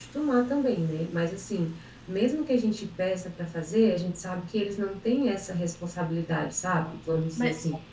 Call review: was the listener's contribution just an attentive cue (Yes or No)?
No